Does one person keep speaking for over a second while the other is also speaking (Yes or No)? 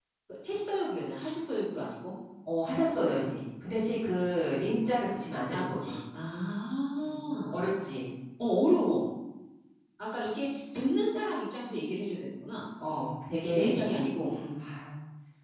No